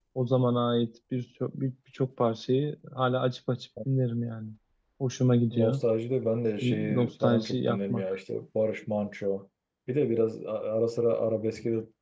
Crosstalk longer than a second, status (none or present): present